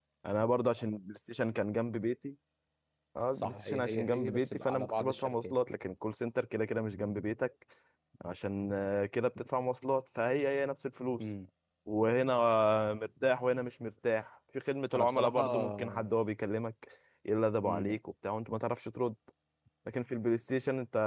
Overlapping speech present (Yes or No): Yes